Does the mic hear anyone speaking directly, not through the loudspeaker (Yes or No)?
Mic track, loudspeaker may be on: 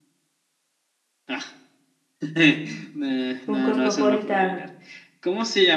Yes